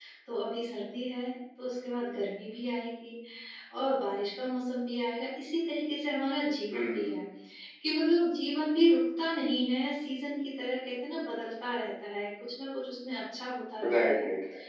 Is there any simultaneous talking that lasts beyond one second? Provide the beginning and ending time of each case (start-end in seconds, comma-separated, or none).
none